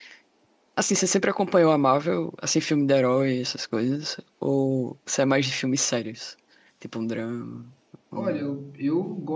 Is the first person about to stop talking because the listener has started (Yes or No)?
Yes